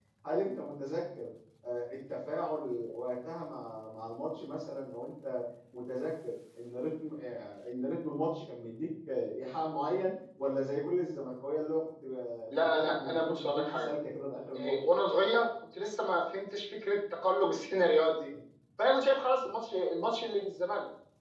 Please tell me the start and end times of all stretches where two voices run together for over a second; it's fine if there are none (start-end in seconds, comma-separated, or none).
12.6-13.9